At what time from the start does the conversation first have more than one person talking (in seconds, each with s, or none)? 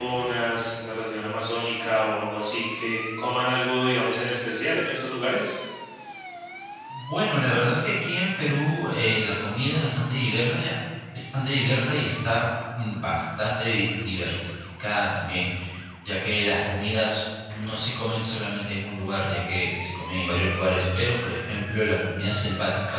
none